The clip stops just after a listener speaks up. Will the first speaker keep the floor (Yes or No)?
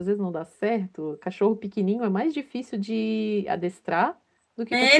No